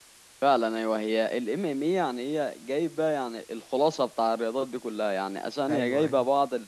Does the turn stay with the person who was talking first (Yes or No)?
Yes